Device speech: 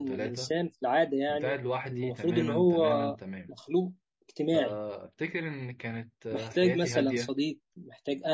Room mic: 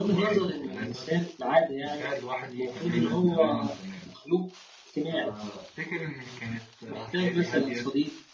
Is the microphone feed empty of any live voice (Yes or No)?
Yes